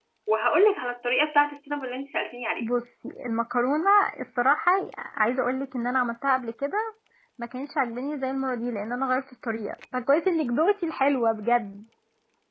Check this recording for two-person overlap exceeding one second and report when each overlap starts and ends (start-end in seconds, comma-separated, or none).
none